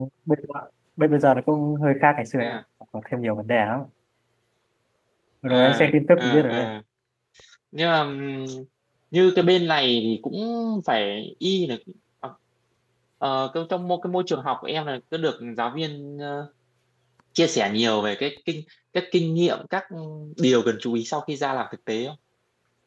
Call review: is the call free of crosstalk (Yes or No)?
No